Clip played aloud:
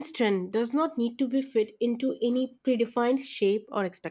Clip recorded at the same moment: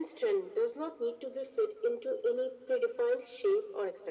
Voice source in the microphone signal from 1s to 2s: echo only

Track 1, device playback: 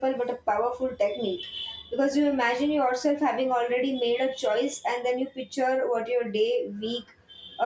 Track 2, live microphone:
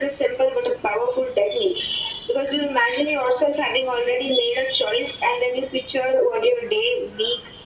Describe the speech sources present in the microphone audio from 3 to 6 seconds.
echo only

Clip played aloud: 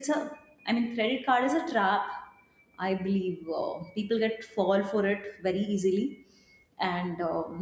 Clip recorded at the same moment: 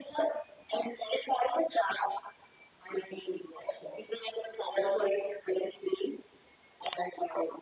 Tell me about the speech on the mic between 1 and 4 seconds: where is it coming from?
echo only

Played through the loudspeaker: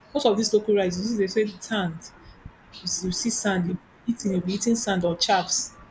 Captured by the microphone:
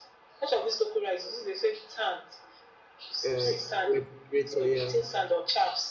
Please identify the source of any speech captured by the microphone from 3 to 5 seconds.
both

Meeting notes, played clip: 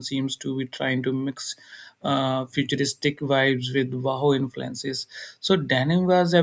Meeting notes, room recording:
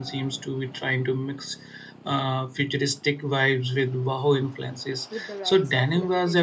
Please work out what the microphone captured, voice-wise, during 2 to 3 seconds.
echo only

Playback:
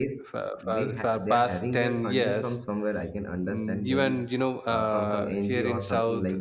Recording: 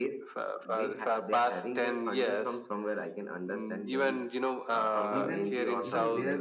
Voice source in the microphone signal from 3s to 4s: echo only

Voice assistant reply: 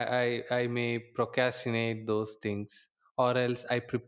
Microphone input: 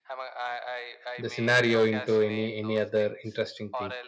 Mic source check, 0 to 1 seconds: echo only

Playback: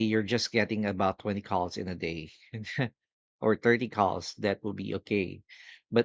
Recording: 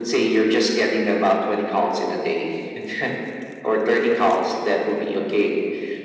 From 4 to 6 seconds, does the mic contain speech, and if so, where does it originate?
echo only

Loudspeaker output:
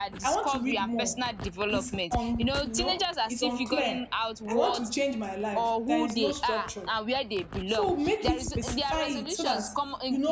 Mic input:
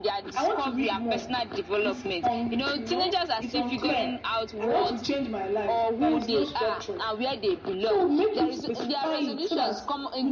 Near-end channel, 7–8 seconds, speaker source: echo only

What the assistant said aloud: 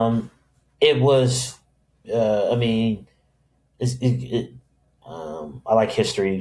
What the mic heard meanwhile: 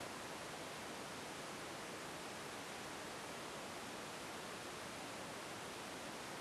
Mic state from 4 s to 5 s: neither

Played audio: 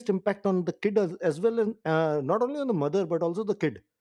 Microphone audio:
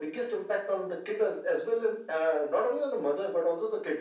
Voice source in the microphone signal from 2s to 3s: echo only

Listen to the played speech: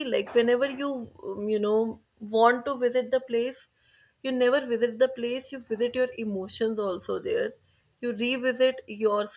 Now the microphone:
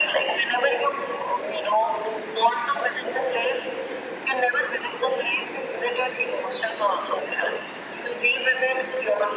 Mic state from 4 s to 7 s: echo only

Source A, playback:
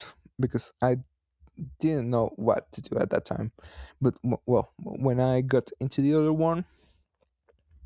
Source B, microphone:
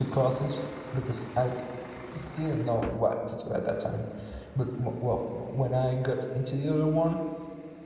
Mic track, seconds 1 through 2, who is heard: echo only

